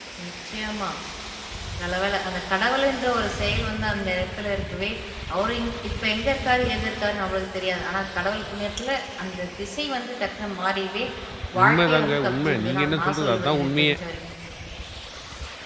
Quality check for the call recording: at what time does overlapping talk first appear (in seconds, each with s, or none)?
11.6 s